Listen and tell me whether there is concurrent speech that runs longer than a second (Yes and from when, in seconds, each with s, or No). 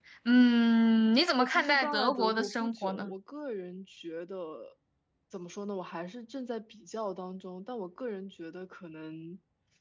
Yes, from 1.4 s